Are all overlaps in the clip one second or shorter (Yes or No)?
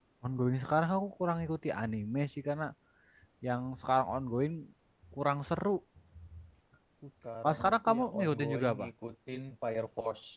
No